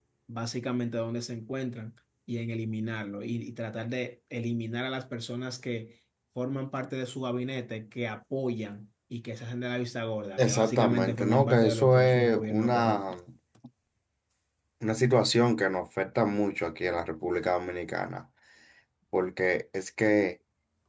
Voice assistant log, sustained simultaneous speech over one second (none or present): present